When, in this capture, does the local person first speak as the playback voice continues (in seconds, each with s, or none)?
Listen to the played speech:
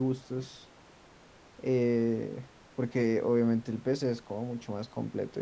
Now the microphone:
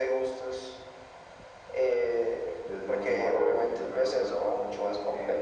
2.6 s